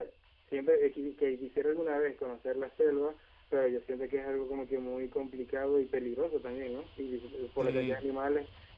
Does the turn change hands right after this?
No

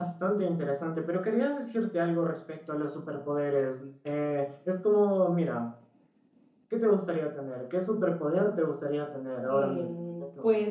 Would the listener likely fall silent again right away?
No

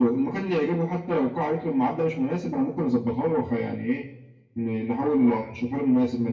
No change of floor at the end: Yes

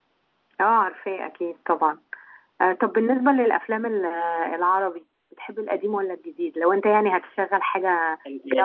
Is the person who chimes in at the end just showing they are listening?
No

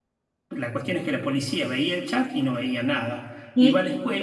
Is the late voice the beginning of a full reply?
No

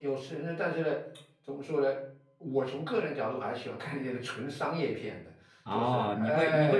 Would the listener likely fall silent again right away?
No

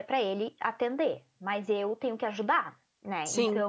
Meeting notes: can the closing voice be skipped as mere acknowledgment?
Yes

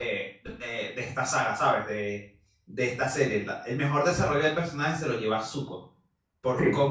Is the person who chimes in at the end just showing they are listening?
Yes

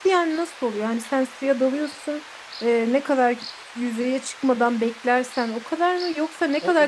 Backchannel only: No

